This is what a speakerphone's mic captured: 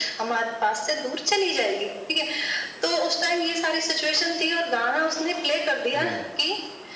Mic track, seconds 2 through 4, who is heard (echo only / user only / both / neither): echo only